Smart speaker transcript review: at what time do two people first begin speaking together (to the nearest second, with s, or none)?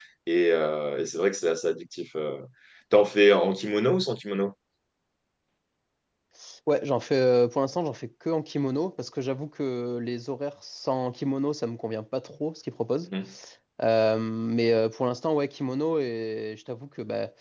none